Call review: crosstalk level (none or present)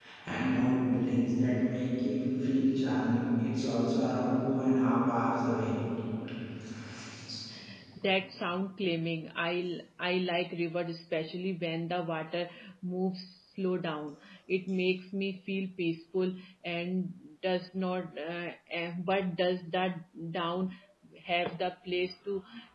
none